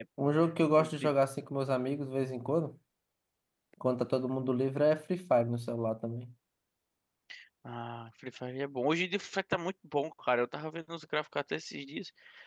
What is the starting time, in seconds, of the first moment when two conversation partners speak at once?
none

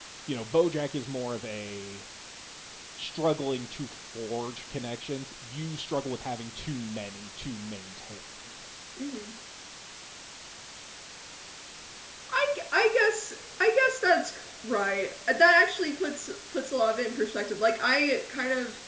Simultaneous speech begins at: none

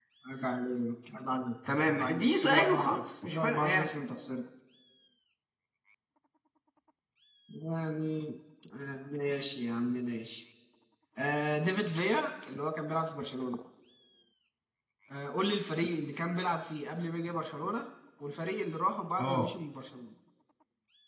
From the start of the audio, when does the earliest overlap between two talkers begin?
1.9 s

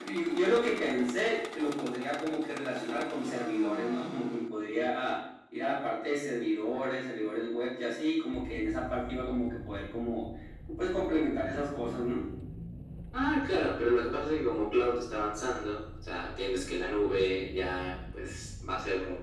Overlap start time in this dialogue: none

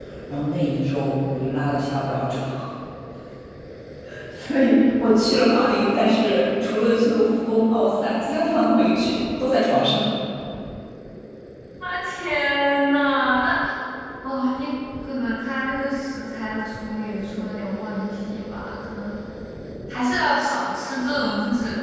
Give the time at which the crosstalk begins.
none

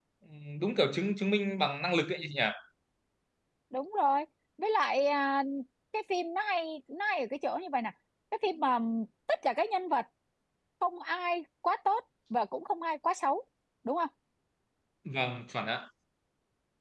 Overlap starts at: none

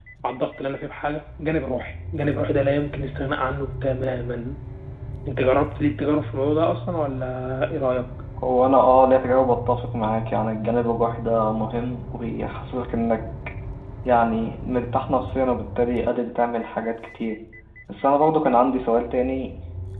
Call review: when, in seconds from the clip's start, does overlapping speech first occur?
none

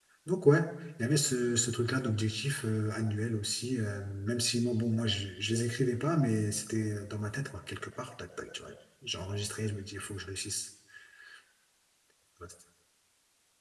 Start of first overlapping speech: none

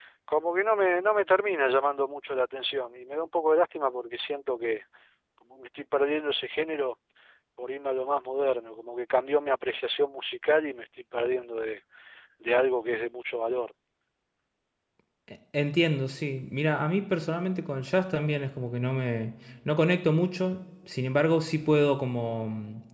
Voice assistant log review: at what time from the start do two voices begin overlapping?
none

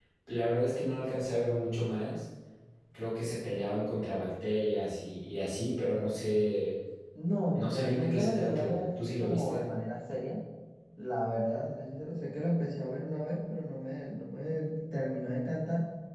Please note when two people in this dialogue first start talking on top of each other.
7.5 s

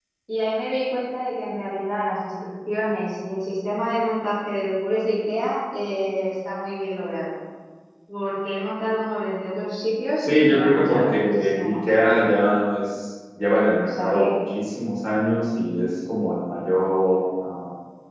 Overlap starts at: 10.2 s

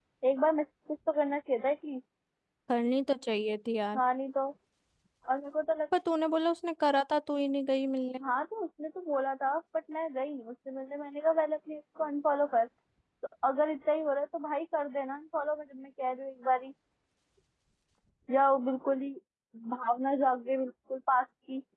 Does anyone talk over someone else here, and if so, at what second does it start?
none

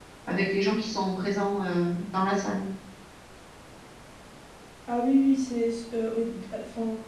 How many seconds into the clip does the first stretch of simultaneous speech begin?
none

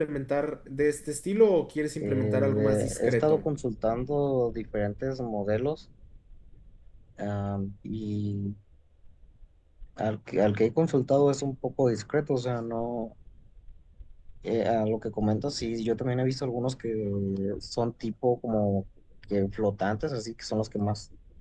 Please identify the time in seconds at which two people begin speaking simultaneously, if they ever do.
2.0 s

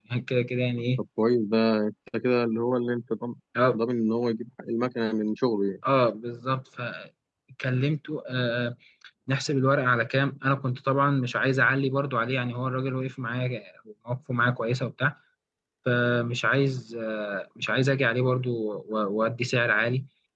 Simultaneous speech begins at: none

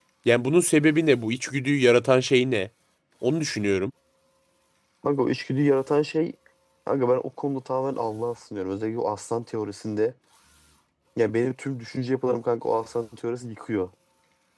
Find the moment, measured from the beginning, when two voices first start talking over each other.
none

